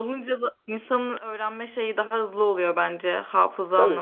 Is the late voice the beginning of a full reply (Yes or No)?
Yes